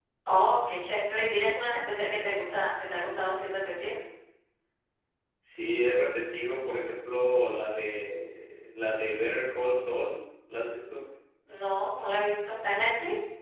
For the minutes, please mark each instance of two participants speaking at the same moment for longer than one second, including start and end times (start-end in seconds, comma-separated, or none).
none